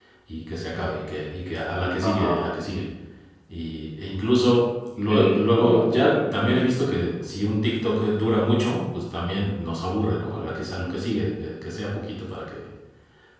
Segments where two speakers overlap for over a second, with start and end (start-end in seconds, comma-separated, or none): 5.1-6.6